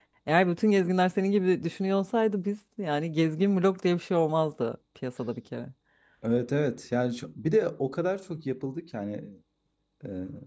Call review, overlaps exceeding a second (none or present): none